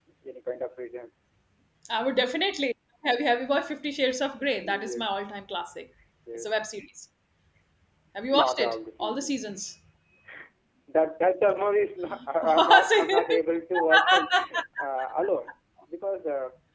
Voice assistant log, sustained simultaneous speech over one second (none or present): present